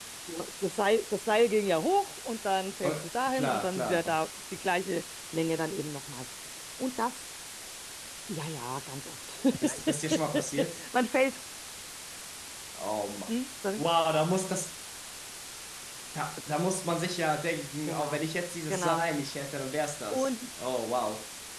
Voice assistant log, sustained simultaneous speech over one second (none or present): present